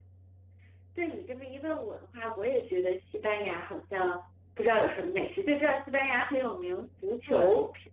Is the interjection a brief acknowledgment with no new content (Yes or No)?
No